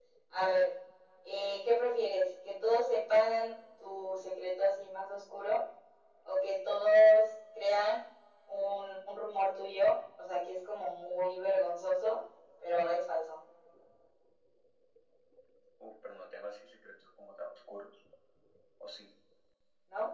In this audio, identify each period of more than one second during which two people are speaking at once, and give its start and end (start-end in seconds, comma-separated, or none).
none